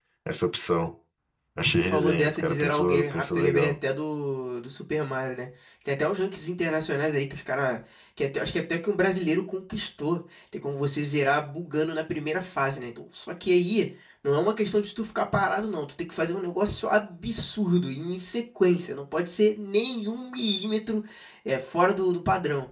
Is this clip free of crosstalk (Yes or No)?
No